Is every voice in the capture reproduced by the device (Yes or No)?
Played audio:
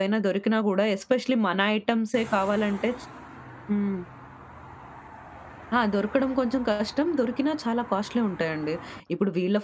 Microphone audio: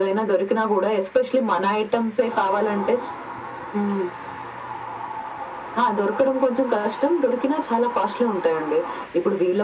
Yes